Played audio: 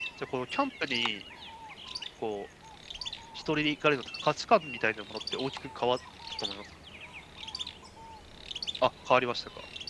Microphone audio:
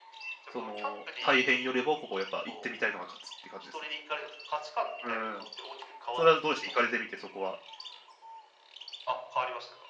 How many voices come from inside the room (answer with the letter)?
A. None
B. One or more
B